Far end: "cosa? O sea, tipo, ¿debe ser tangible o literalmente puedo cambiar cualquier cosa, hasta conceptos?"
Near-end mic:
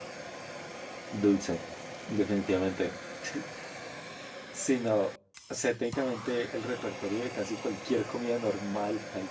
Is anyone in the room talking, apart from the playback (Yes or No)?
Yes